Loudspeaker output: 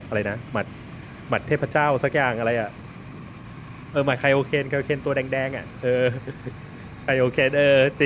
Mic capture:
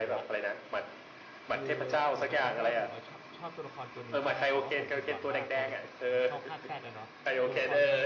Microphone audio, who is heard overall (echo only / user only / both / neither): both